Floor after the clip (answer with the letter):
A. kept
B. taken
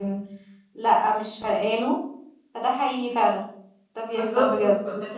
B